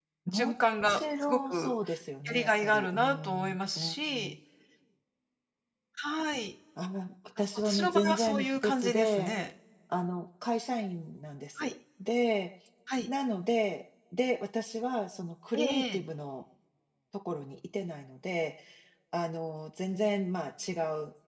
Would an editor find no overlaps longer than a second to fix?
No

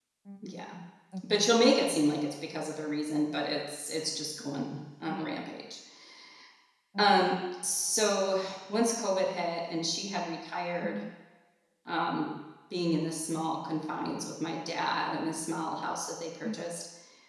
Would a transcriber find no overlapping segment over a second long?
Yes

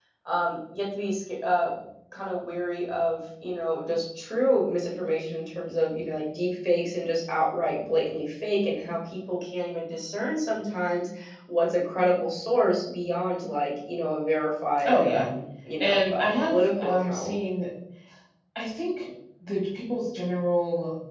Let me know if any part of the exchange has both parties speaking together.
Yes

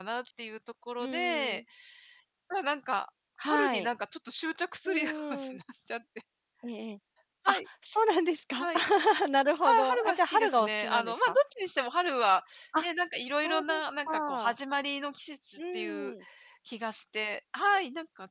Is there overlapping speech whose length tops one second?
Yes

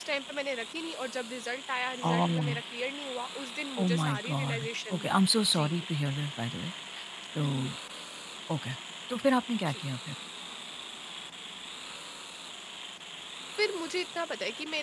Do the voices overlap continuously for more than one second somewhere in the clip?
Yes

